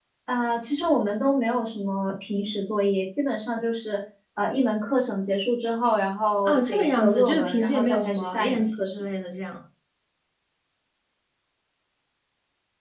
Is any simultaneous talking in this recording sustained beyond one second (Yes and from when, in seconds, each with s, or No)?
Yes, from 6.4 s